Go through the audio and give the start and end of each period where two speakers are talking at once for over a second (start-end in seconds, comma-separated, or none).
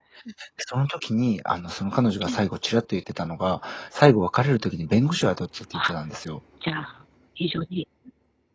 none